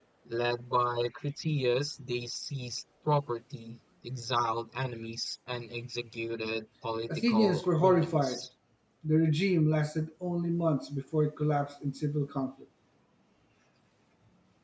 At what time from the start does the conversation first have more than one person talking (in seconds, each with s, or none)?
7.1 s